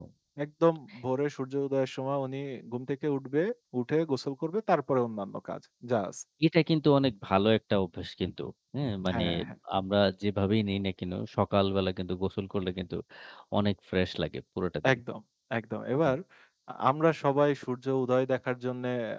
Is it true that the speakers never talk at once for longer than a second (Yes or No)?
Yes